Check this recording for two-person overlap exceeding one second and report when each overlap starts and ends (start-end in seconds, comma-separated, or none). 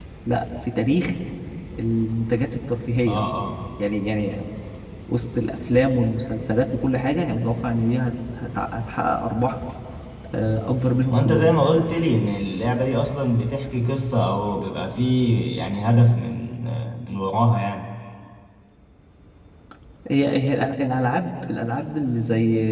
none